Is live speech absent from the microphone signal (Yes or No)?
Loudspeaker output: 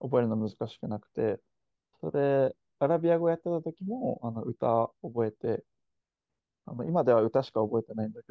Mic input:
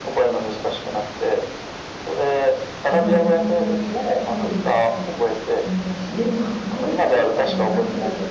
No